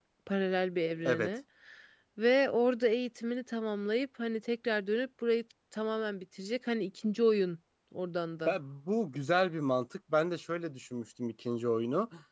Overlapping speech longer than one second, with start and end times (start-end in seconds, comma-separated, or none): none